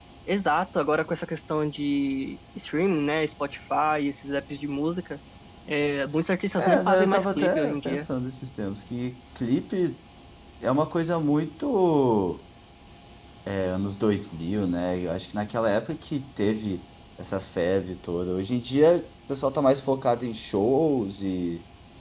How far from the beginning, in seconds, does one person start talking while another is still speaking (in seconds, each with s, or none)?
6.5 s